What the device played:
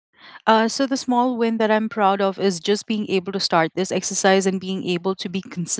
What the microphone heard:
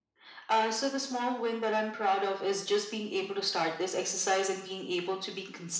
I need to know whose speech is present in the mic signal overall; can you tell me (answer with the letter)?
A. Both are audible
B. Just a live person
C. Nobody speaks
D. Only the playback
D